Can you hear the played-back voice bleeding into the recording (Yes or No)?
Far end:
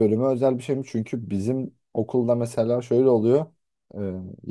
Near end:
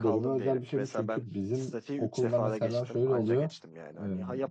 Yes